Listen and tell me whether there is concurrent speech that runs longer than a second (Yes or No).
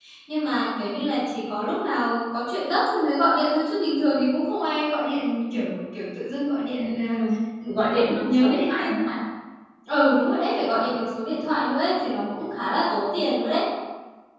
Yes